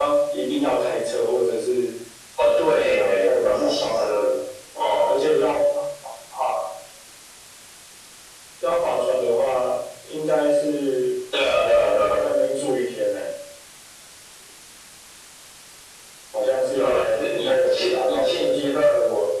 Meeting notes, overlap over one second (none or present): present